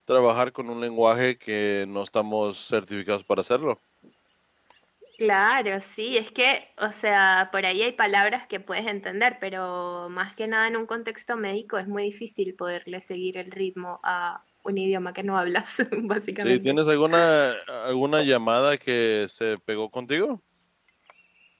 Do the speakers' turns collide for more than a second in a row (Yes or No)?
No